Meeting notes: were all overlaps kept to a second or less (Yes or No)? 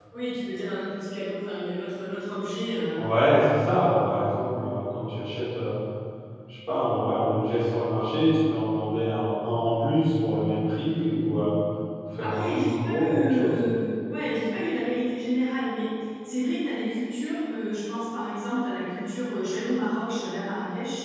No